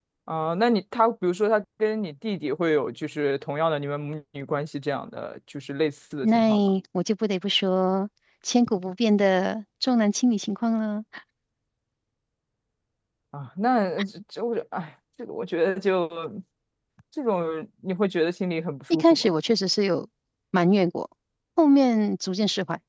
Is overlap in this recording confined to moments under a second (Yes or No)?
Yes